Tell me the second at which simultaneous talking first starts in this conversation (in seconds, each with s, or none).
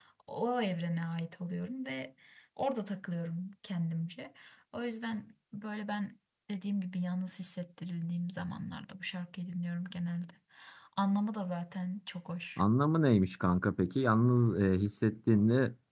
none